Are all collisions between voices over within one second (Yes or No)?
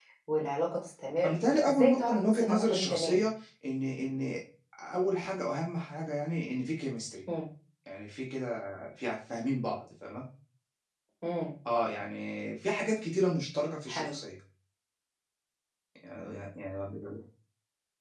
No